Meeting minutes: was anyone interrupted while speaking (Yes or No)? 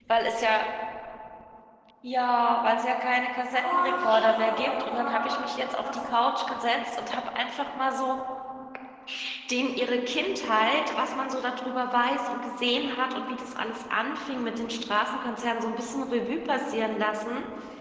Yes